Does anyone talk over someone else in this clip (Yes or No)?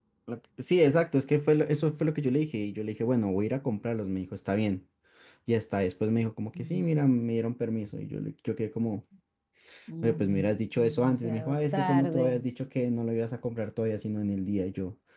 Yes